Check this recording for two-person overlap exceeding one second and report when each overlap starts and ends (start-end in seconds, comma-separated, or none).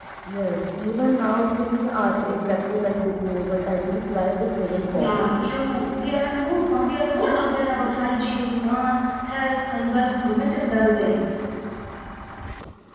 none